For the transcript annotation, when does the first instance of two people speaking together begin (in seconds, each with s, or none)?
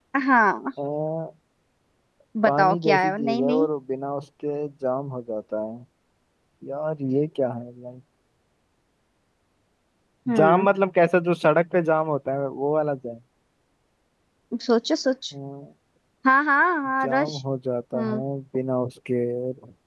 2.5 s